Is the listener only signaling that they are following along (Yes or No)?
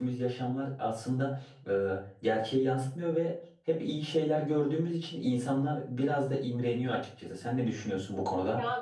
No